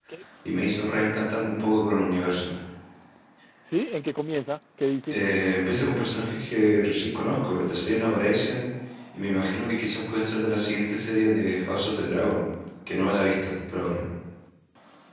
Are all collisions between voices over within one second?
Yes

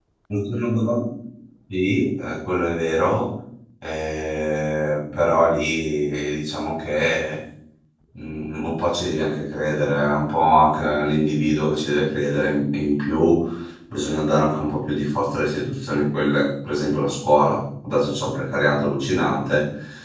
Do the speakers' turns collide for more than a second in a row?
No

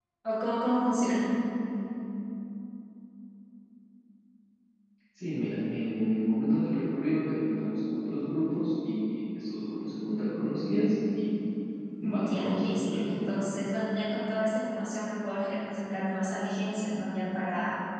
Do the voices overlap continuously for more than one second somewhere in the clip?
Yes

